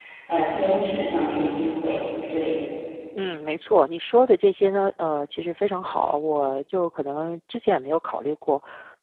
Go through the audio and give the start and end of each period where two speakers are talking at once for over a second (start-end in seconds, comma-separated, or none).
none